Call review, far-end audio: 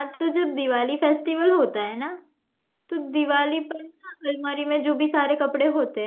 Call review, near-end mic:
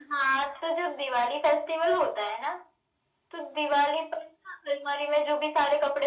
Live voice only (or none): none